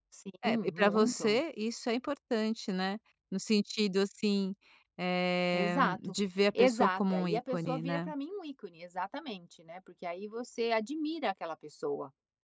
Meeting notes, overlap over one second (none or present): present